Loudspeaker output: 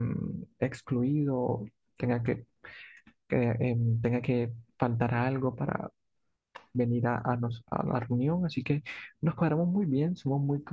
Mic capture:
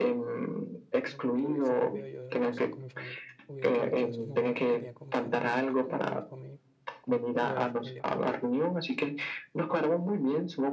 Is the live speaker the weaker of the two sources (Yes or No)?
Yes